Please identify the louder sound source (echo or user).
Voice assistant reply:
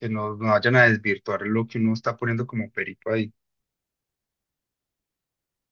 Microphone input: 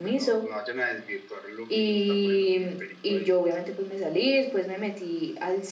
user